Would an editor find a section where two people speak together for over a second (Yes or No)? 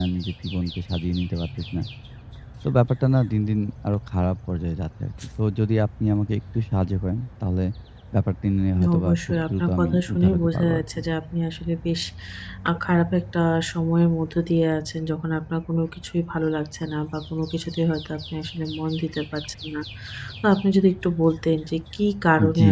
Yes